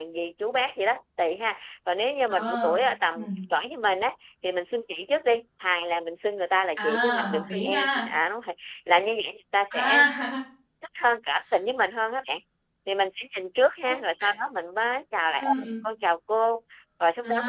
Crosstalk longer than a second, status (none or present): present